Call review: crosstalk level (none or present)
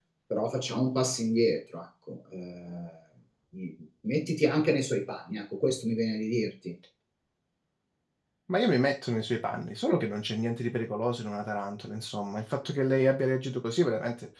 none